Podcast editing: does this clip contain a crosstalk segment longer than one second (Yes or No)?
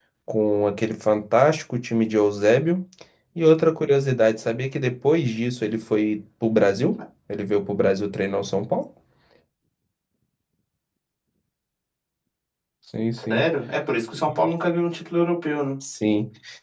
No